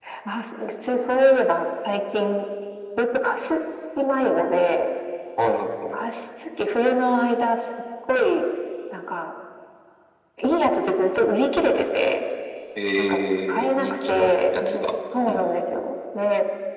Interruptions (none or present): present